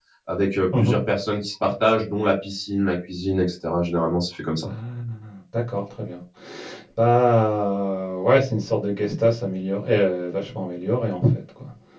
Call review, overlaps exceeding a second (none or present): none